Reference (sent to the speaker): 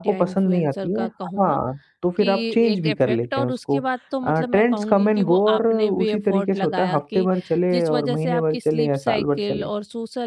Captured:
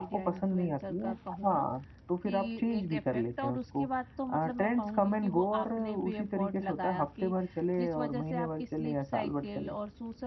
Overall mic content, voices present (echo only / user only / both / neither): echo only